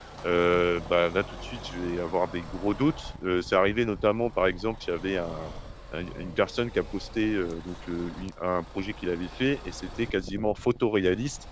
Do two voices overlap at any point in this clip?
No

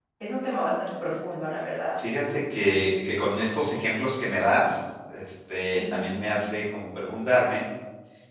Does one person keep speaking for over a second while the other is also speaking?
No

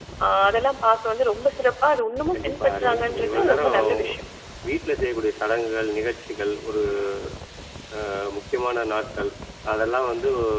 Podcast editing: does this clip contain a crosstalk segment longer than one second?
Yes, from 2.3 s

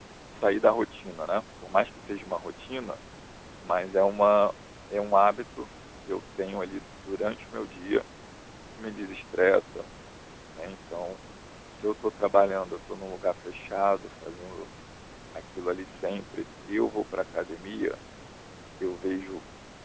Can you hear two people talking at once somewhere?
No

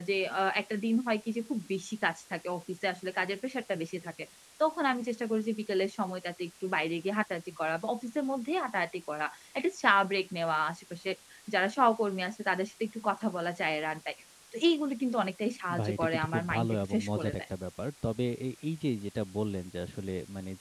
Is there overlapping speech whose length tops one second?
Yes, from 15.7 s

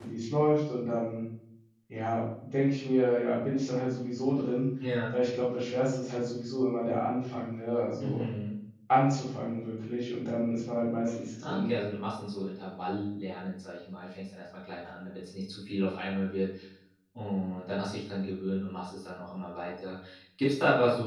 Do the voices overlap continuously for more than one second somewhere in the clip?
No

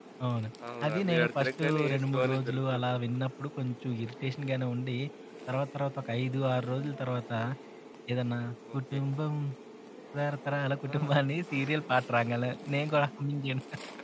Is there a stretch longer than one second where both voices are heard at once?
Yes, from 0.8 s

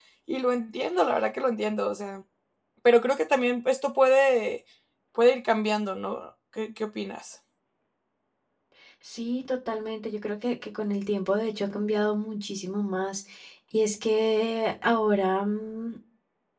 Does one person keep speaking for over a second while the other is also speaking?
No

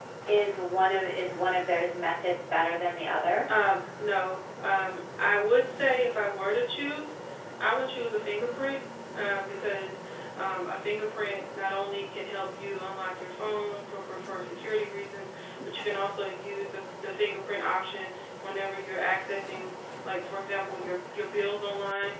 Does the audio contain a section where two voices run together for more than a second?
No

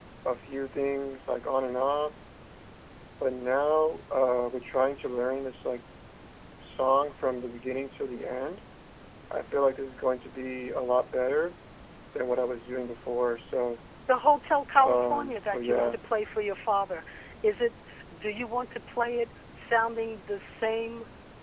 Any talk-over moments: Yes, from 14.8 s

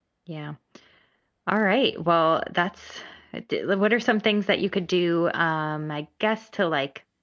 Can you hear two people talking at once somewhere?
No

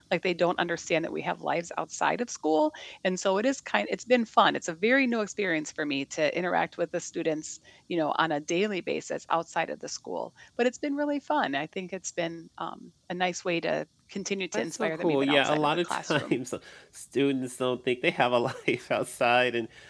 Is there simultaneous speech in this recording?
Yes, from 14.5 s

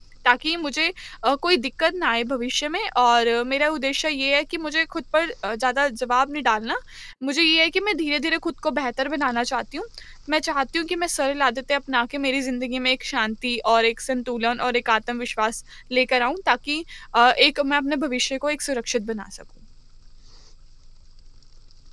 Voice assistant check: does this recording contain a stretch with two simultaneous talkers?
No

